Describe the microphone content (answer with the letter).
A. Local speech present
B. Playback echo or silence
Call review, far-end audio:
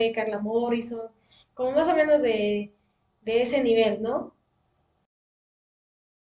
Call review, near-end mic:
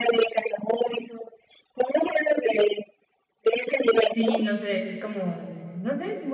A